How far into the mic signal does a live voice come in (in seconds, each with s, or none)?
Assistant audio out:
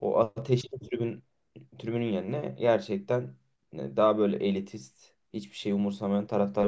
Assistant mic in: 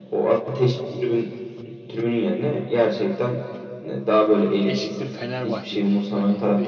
4.7 s